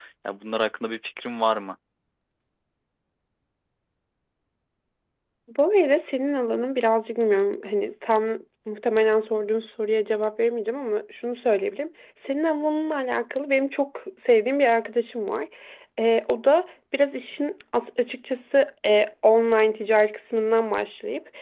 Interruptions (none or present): none